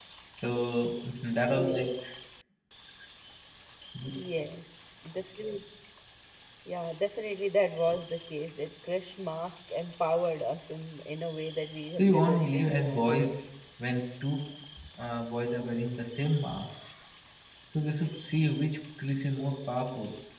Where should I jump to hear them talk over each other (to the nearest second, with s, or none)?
12 s